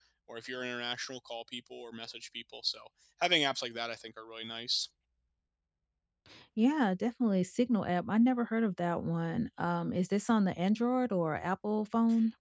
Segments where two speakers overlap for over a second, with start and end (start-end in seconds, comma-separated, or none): none